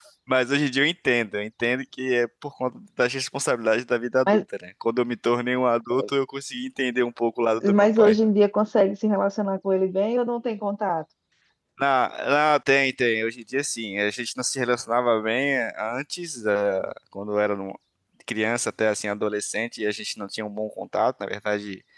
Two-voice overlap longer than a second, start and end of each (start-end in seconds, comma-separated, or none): none